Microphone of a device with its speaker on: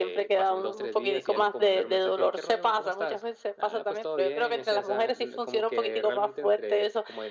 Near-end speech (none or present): none